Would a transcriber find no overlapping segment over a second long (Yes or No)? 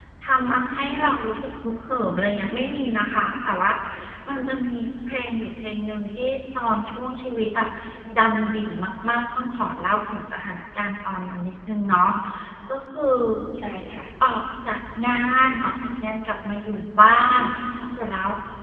Yes